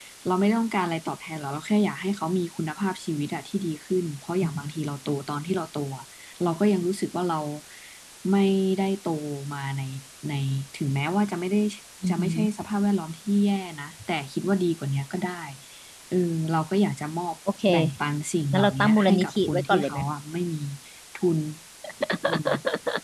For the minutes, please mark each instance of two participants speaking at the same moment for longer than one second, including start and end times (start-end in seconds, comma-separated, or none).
18.5-20.0